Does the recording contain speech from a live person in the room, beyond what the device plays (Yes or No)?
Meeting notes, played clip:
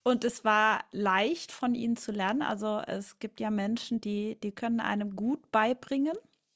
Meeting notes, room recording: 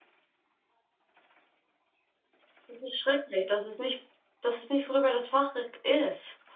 Yes